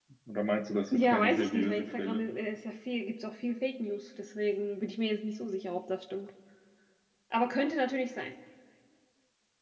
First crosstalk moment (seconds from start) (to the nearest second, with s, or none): 1 s